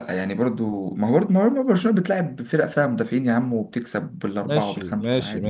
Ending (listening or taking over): taking over